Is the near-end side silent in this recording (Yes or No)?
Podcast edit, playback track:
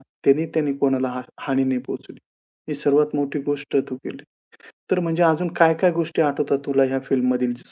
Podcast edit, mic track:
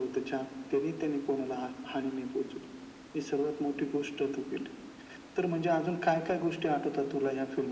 Yes